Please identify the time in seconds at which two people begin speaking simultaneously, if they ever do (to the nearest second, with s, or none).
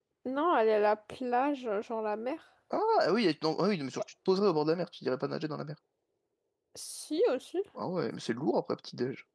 none